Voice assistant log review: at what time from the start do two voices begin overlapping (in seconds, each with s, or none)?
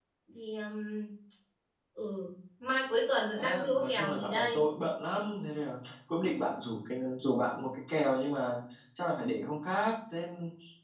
3.4 s